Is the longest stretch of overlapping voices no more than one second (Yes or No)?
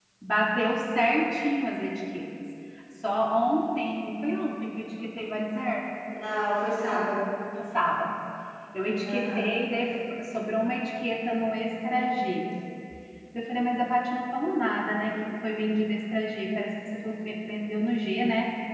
Yes